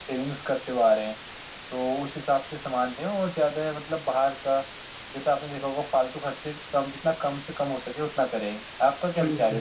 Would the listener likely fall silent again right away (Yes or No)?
No